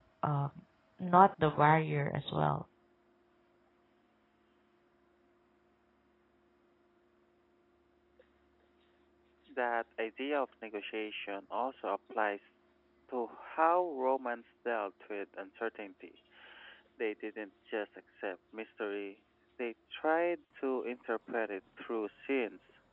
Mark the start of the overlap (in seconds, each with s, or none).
none